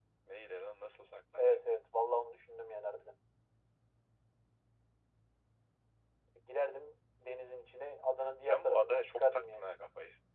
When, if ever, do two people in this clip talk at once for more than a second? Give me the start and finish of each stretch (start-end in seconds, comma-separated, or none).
8.4-9.7